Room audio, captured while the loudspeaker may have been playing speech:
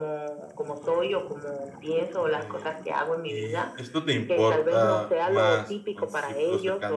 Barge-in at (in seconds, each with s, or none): 2.1 s